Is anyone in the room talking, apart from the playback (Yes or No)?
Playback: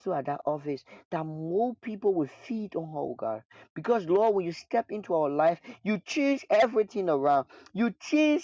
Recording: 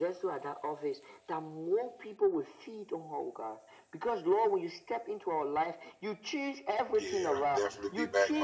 Yes